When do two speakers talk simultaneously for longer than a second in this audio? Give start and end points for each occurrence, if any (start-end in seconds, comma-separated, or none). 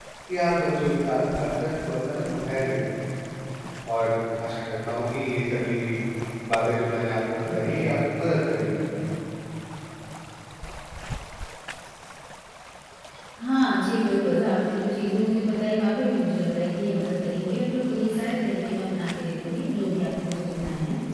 none